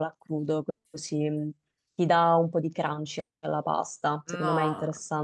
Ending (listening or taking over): taking over